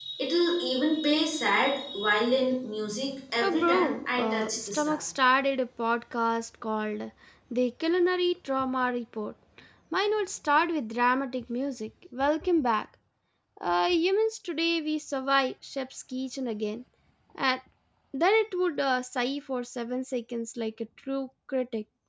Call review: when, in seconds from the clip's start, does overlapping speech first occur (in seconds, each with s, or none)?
3.4 s